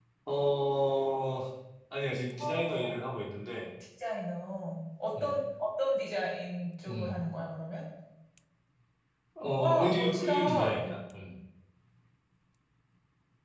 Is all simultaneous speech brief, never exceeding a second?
No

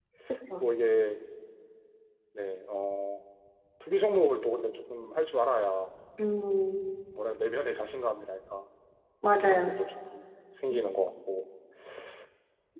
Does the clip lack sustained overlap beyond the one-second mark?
Yes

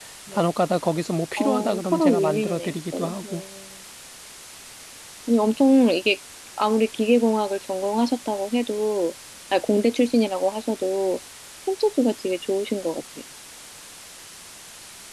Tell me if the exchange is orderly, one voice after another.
No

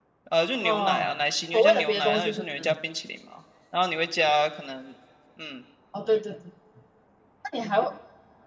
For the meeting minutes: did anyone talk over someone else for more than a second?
Yes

